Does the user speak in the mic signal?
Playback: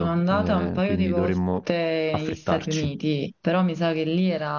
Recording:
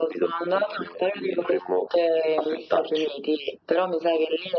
No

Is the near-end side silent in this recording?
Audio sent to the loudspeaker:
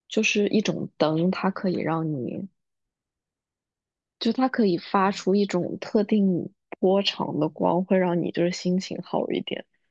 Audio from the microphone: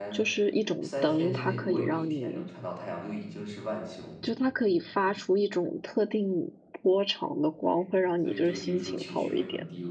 No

